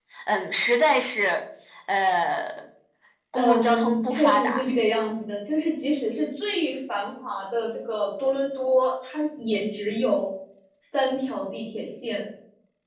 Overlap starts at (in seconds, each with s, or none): 3.4 s